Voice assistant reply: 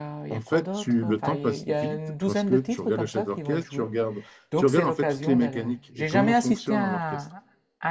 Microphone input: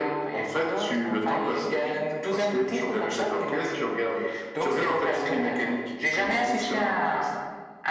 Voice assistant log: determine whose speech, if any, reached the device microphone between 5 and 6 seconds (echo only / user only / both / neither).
echo only